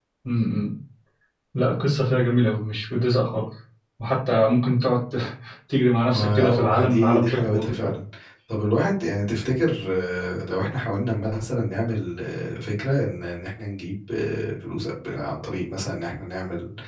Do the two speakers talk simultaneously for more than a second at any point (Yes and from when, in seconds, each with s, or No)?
Yes, from 6.1 s